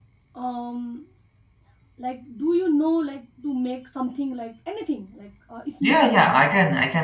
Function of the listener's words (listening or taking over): taking over